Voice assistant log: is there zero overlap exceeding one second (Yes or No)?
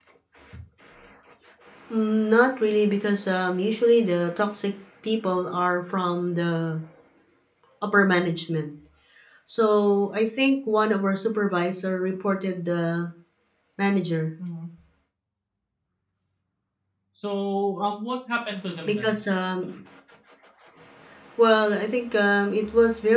Yes